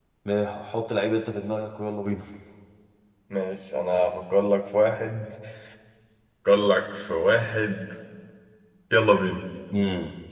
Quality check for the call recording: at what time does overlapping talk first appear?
none

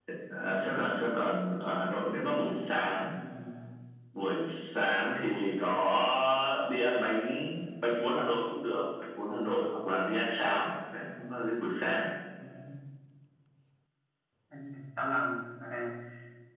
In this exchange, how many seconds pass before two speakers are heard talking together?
none

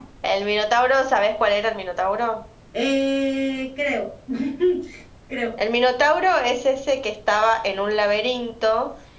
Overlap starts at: none

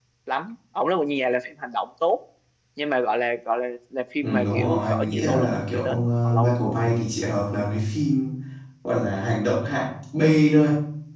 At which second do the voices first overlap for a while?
4.2 s

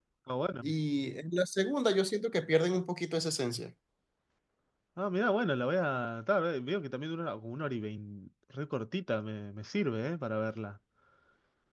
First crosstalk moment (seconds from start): none

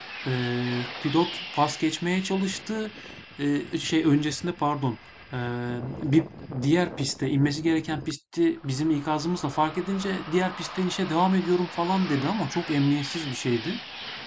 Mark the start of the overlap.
none

